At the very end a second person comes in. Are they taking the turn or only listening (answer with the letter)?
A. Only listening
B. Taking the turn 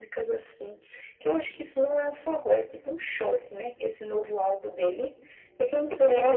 B